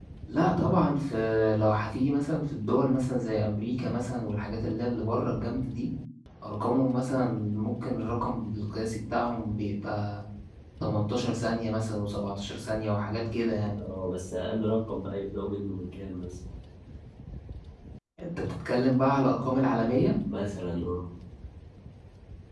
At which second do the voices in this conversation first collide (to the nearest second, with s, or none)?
none